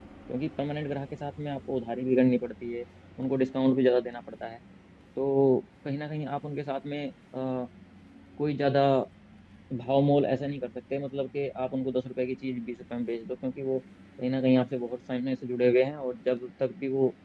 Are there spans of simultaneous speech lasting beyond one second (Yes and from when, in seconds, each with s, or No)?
No